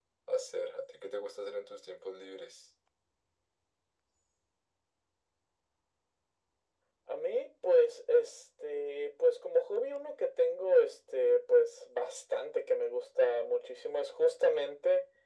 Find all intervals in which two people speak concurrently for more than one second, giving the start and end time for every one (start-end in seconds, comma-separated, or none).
none